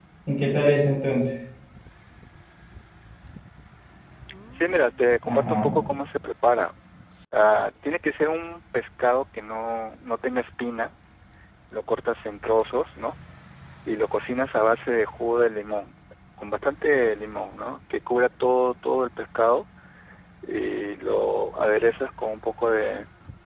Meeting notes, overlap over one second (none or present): none